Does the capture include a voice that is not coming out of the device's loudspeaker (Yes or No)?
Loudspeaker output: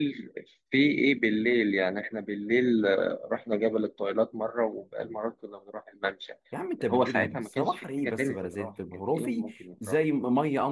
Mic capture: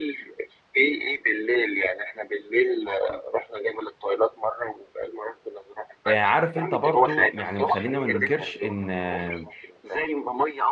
Yes